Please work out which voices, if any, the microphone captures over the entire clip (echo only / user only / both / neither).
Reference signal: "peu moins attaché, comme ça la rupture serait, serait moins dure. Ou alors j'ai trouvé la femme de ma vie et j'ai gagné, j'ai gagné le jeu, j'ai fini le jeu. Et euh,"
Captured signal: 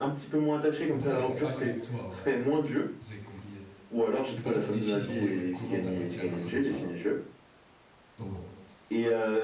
both